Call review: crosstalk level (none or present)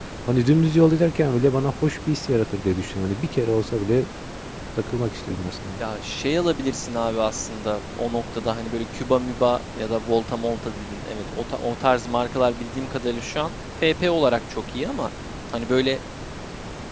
none